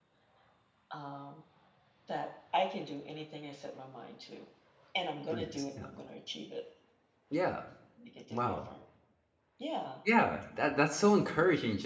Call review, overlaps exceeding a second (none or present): none